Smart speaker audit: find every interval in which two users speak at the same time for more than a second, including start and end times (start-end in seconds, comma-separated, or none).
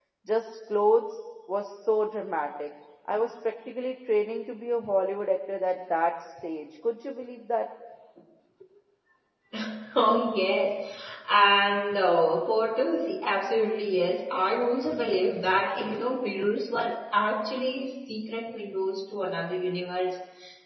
none